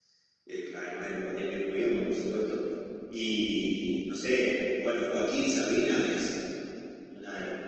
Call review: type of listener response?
listening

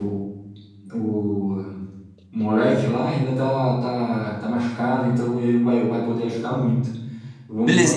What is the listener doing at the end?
taking over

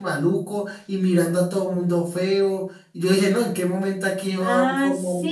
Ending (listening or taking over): taking over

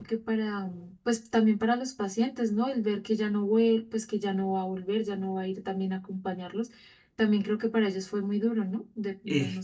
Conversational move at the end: taking over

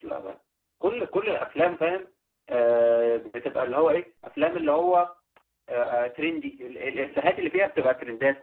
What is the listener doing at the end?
listening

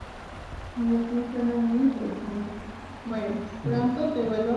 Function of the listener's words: listening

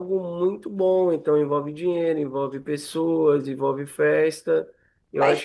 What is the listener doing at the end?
taking over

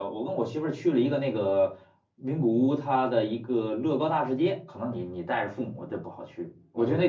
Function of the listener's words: taking over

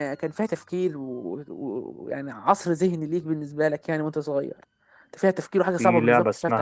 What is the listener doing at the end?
taking over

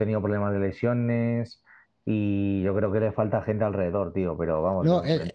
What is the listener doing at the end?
taking over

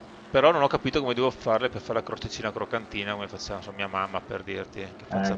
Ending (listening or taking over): taking over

